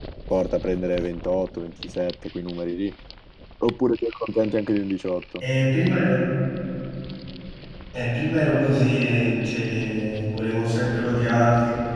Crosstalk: none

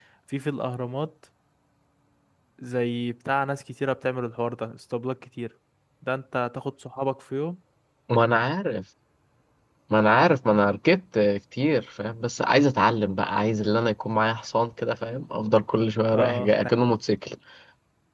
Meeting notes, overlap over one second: none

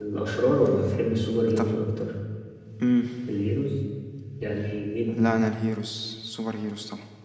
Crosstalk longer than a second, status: none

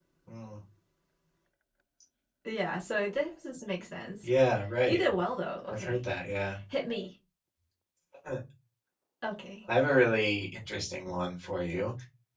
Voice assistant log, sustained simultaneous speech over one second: none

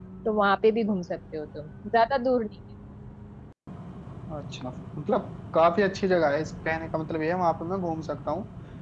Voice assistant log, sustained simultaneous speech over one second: none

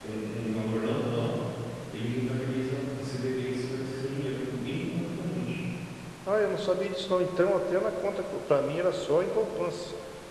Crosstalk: none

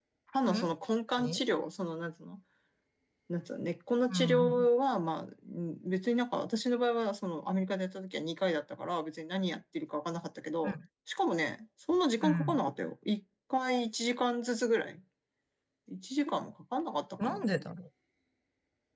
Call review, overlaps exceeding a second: none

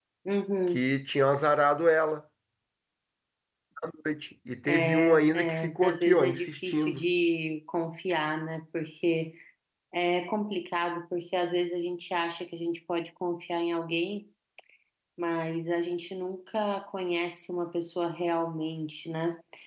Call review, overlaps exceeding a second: present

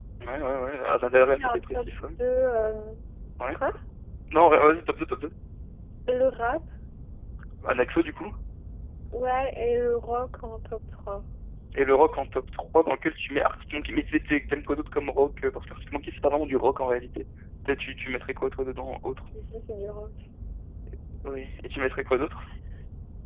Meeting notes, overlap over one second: present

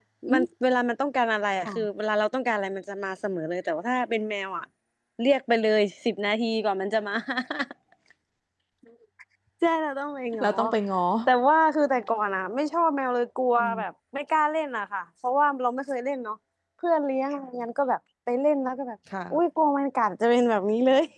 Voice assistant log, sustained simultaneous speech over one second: none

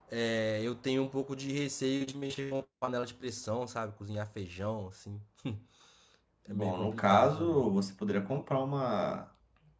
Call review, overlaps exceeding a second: present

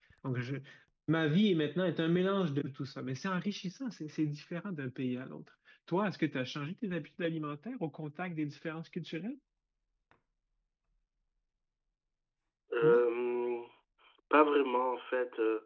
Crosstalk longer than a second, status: none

